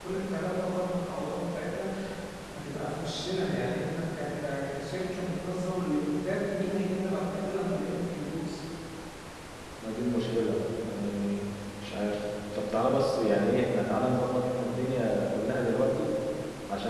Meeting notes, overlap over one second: none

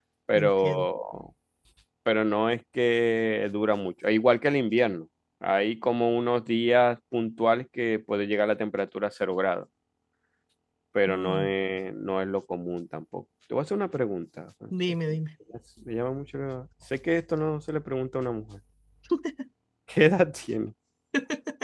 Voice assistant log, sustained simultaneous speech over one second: none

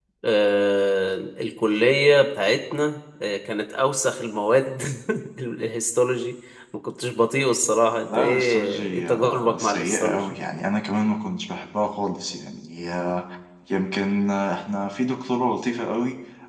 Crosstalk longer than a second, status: present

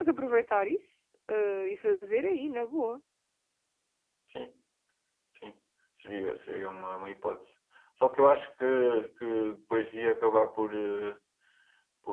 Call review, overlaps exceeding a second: none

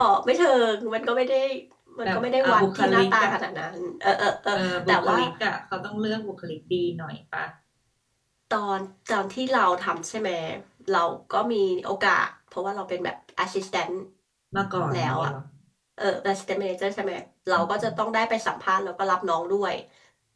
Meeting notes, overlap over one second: present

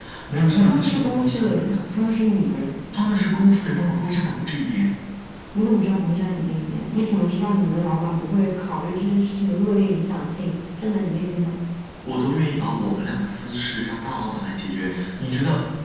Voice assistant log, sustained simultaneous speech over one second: present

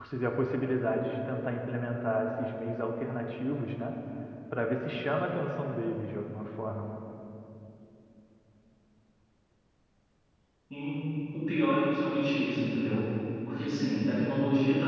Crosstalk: none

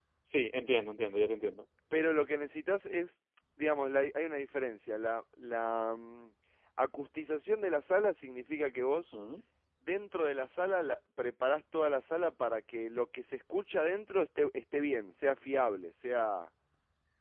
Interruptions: none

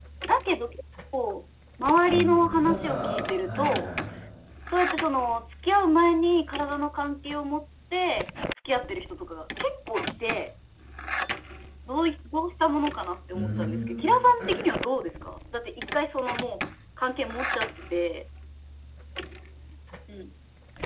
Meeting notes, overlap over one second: present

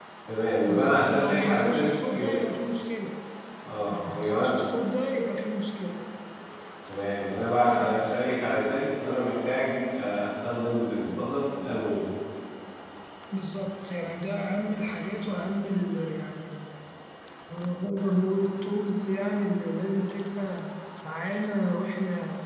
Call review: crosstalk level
present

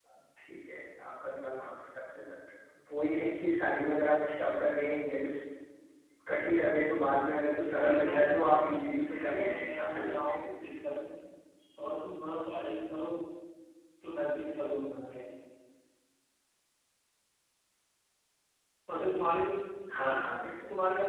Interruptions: present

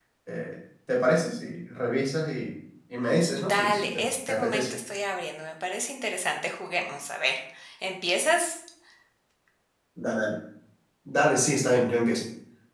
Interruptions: present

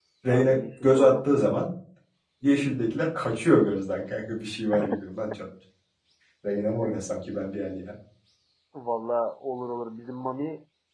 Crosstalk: present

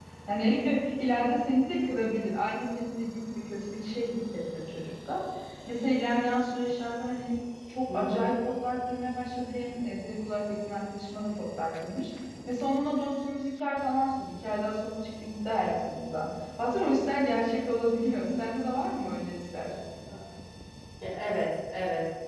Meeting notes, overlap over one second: none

